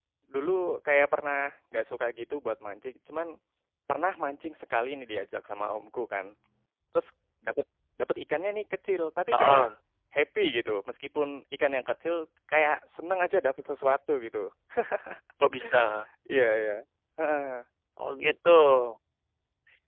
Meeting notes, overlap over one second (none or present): none